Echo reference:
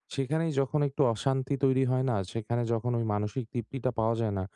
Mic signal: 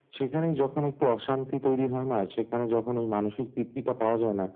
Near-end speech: none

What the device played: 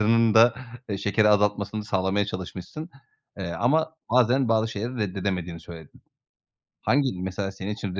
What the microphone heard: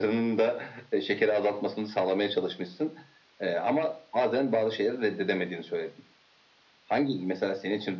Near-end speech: none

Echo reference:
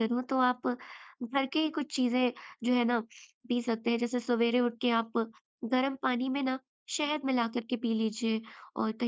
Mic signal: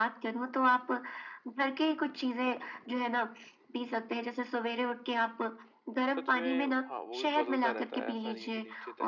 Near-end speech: present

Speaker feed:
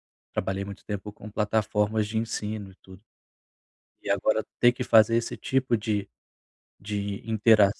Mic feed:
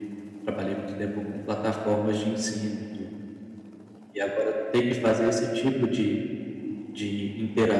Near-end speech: none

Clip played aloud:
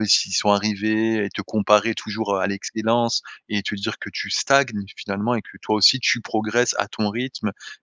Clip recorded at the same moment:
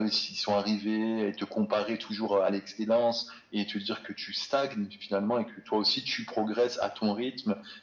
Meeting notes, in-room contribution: none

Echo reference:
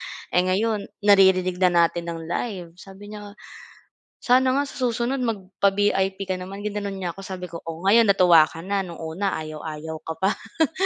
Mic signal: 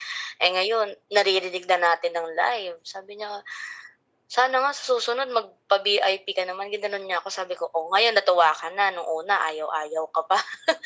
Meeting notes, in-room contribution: none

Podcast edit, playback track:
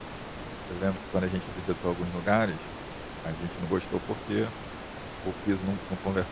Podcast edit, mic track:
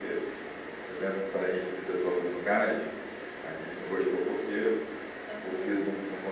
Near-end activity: present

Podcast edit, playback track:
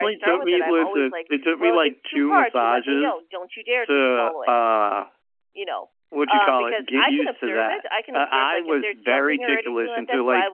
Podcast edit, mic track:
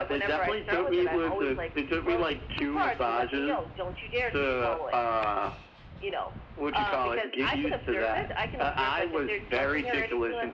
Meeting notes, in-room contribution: none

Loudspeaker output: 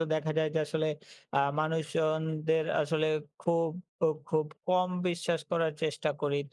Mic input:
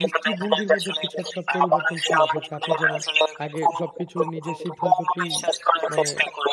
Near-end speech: present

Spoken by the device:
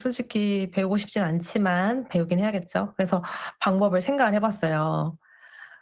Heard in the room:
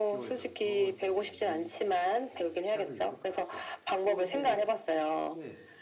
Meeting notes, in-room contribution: present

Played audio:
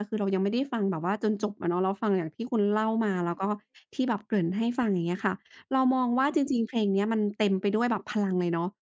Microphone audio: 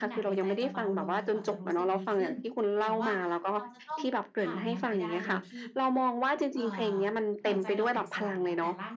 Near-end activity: present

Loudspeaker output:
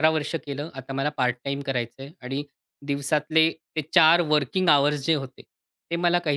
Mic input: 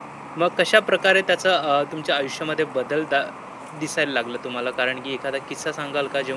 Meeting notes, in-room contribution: present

